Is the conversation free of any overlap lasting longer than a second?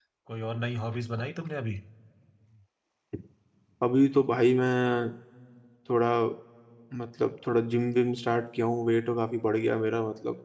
Yes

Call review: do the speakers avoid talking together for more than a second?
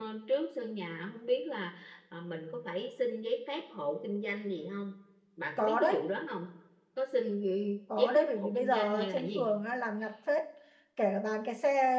No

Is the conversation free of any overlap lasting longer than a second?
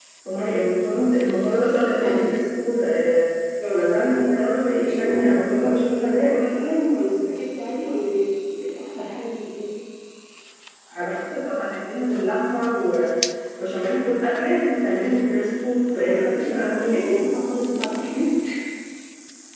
No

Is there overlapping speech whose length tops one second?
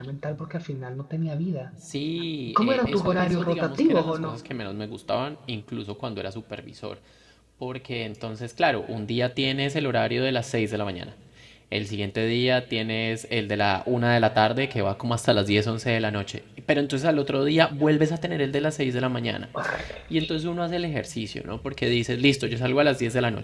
Yes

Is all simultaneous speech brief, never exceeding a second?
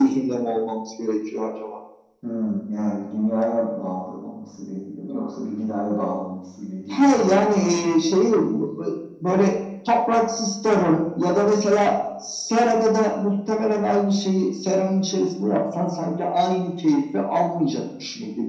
No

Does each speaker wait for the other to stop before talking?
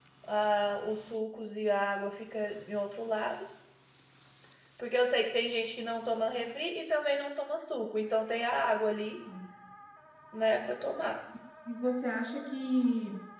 Yes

